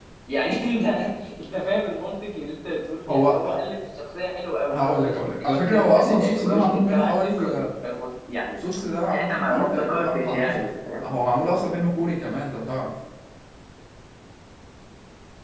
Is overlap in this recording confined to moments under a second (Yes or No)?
No